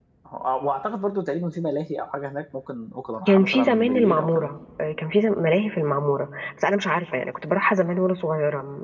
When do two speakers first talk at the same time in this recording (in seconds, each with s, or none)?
3.3 s